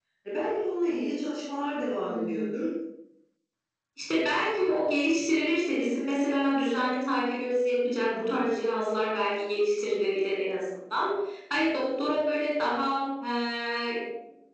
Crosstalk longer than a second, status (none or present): none